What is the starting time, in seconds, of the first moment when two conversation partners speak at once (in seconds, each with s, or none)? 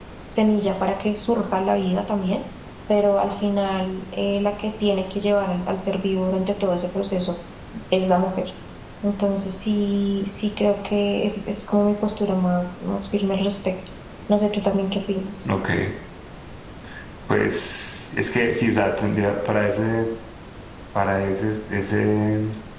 none